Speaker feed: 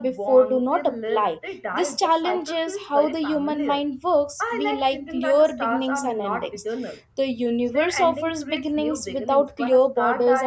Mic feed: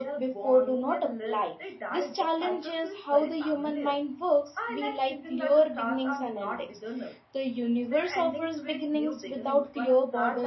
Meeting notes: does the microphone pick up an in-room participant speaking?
No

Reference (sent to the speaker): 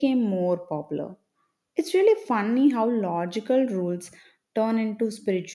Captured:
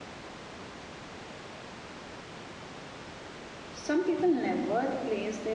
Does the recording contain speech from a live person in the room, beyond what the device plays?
Yes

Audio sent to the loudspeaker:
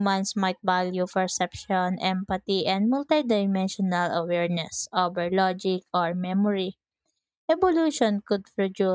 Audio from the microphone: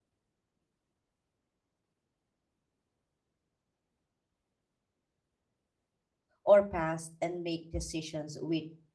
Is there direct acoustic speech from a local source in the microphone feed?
Yes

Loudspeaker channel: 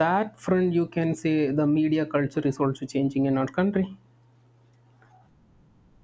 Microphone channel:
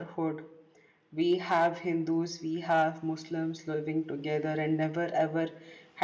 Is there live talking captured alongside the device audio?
Yes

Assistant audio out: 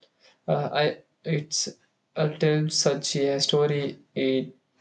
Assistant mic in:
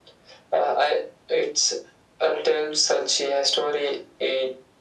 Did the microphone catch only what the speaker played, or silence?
Yes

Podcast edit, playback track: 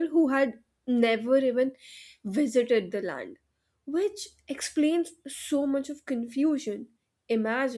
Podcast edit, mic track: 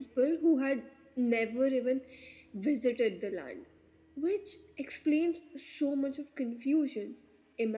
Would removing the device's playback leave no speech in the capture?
Yes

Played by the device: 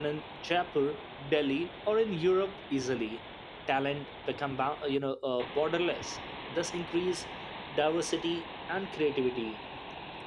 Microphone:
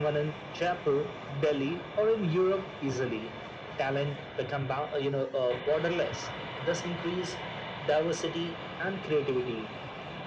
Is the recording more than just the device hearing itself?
No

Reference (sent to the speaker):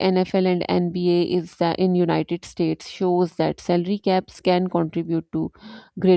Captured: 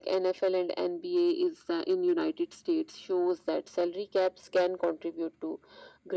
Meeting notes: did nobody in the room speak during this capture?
Yes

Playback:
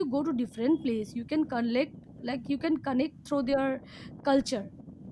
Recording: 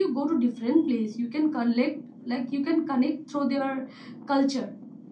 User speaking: No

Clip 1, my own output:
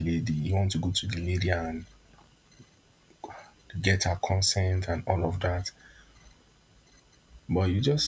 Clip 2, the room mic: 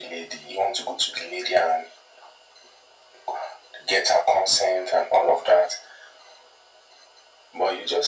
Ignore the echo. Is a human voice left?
No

